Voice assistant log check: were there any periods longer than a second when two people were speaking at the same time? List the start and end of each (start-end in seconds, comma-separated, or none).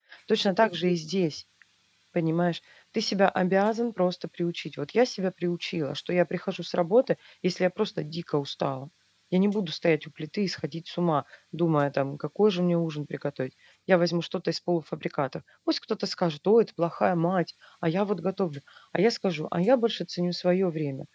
none